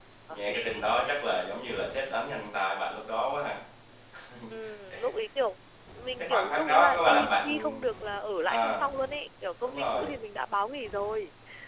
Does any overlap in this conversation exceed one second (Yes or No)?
Yes